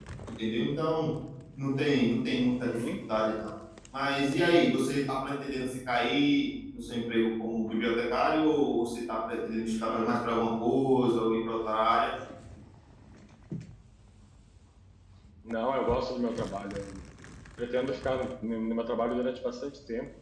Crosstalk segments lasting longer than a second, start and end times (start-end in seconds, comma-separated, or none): none